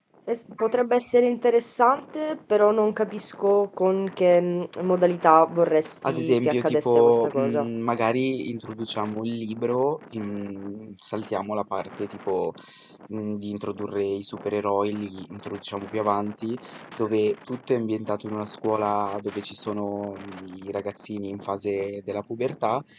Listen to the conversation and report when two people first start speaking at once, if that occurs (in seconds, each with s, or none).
6.0 s